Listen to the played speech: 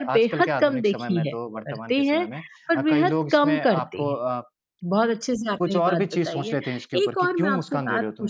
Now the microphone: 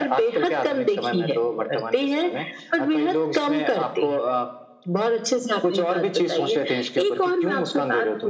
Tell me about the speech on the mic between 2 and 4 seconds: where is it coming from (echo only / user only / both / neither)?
echo only